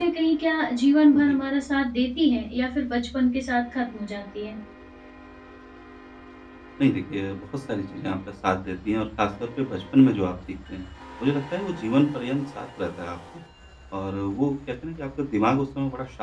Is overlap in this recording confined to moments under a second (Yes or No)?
Yes